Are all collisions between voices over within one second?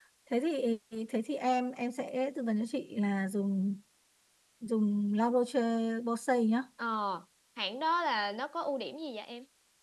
Yes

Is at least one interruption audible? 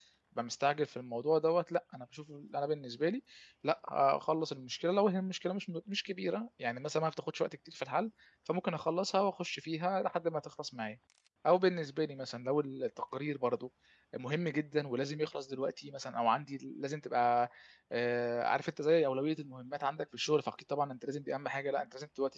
No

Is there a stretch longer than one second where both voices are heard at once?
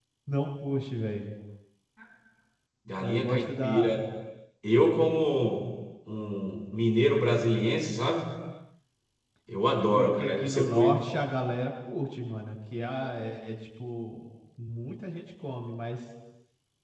Yes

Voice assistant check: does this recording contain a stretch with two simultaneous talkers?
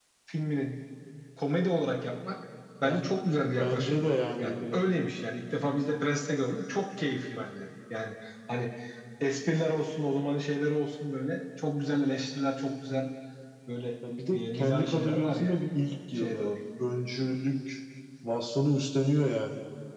Yes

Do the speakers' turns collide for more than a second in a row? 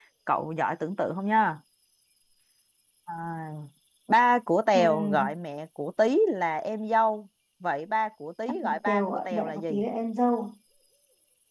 Yes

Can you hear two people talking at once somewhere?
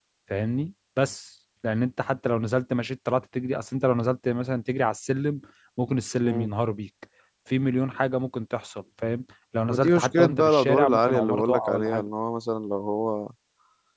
Yes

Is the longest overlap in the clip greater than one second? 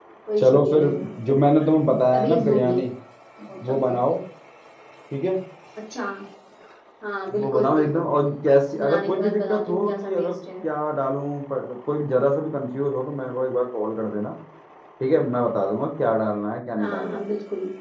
Yes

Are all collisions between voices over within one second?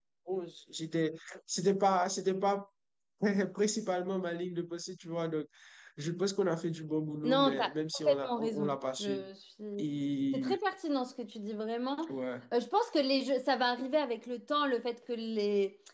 No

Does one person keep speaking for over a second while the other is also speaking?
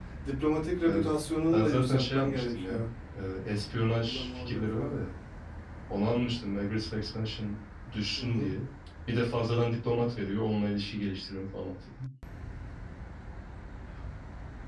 Yes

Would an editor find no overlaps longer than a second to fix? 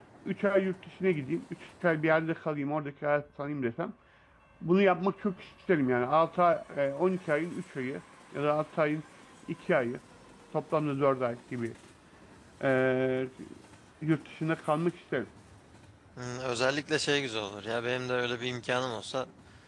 Yes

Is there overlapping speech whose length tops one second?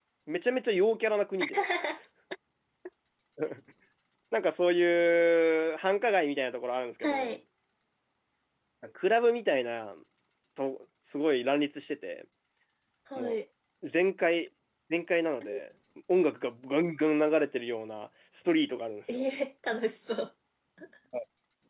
No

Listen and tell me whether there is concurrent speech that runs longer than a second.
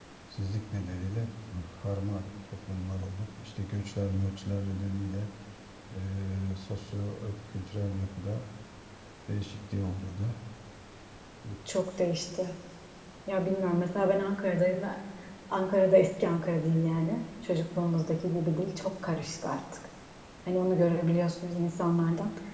No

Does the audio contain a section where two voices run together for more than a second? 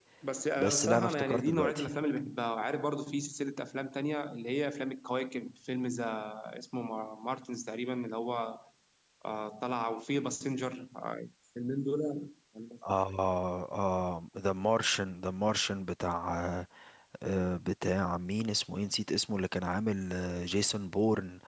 Yes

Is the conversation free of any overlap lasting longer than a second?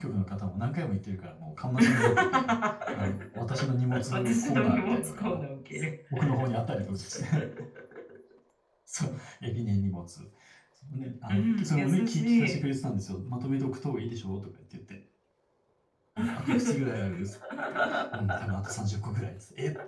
No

